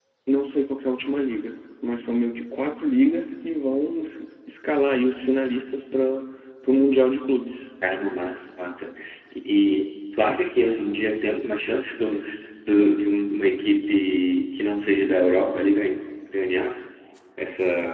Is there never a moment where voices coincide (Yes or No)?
Yes